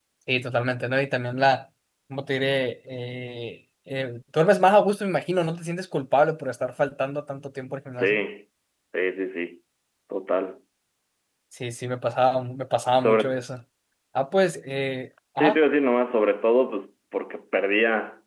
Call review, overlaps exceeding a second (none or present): none